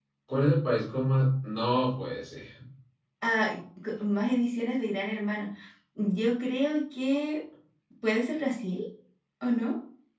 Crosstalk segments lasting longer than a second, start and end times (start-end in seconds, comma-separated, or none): none